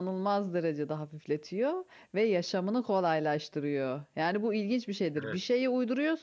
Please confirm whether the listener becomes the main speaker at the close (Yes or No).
No